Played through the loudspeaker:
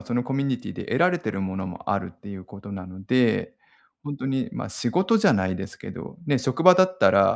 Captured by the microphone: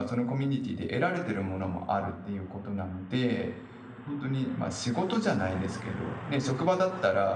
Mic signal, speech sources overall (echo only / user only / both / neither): echo only